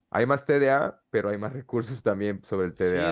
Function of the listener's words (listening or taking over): taking over